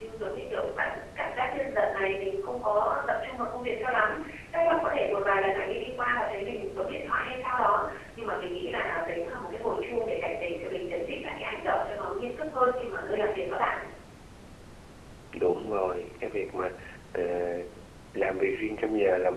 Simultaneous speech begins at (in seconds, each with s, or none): none